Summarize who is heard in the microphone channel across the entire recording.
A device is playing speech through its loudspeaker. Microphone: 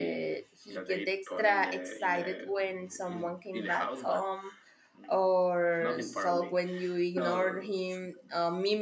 both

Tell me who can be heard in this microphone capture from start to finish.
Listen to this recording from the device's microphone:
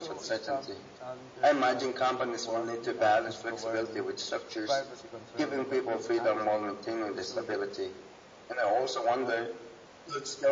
both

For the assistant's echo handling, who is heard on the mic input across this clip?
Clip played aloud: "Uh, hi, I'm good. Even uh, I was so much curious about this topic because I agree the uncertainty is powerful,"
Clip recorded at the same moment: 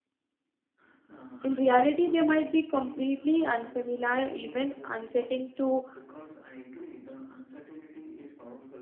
both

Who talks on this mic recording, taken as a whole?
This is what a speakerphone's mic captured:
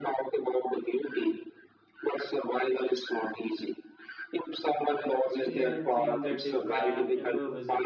both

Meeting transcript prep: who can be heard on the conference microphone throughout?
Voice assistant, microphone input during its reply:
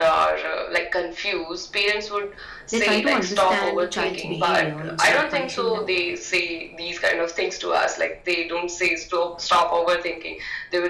both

